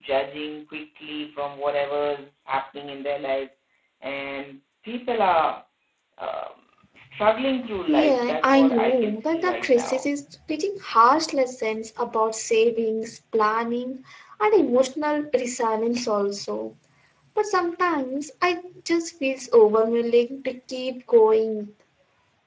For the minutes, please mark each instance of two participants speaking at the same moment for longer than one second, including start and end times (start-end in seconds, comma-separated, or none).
7.9-10.0